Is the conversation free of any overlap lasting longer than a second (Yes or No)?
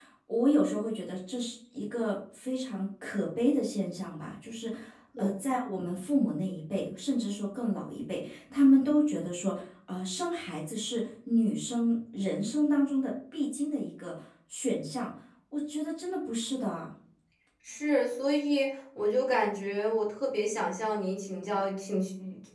Yes